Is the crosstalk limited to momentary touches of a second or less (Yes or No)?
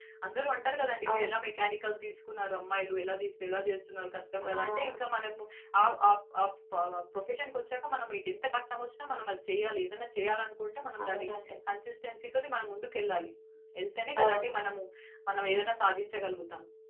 Yes